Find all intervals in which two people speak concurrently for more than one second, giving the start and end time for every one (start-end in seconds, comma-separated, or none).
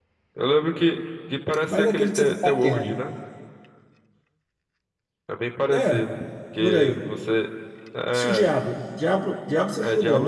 1.7-2.9